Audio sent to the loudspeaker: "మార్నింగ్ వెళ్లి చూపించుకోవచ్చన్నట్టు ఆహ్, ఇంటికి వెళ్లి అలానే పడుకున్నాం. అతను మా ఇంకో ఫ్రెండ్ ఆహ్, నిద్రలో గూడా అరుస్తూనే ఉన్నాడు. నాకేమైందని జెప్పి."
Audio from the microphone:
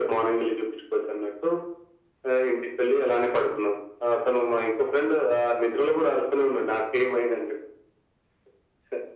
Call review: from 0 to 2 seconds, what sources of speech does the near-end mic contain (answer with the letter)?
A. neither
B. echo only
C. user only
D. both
B